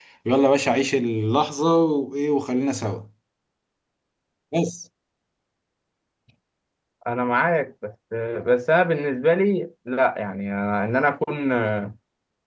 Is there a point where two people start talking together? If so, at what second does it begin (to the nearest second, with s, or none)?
none